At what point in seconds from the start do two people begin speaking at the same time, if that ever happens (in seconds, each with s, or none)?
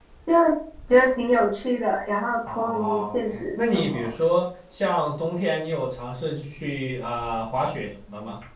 2.5 s